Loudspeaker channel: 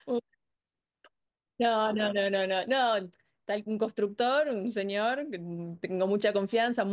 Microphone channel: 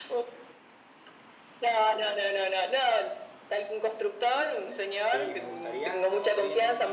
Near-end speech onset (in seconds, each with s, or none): 5.1 s